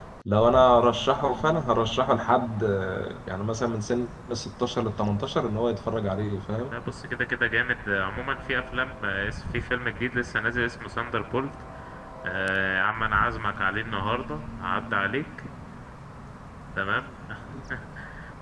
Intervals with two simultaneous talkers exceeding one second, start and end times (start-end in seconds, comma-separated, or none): none